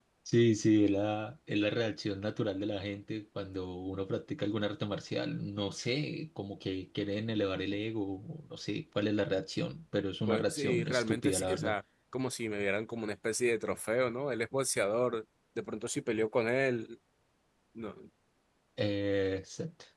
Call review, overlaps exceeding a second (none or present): present